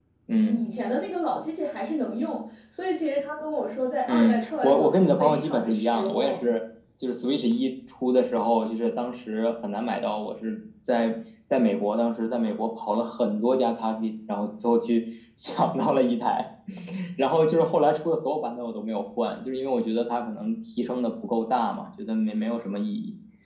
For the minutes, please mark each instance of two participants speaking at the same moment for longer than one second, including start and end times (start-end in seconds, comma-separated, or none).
4.1-6.5